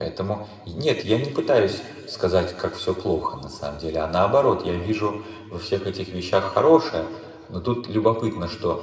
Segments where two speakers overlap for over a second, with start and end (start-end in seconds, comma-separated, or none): none